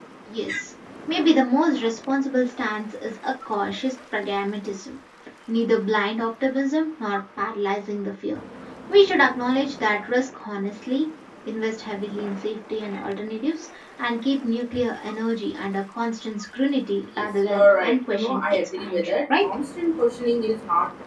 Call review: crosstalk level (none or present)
present